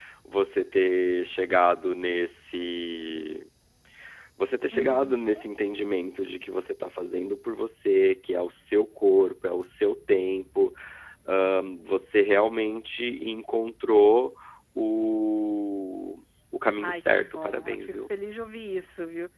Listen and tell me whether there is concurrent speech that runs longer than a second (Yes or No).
Yes